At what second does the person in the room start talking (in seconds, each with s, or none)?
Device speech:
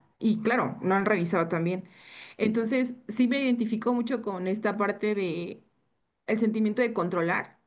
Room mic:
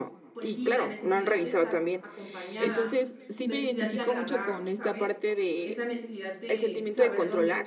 0.3 s